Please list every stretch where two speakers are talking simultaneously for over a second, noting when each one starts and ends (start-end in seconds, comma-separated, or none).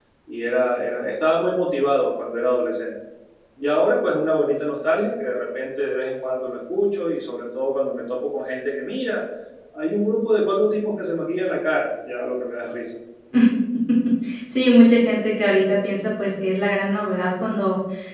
none